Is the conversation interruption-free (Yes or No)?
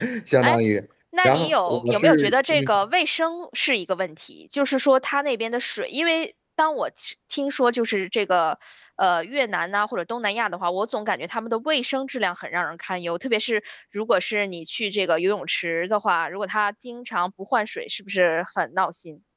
No